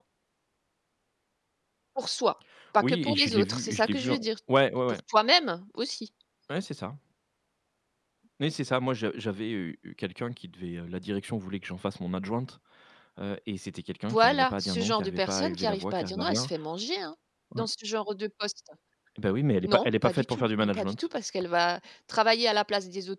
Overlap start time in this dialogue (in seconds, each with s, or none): 2.8 s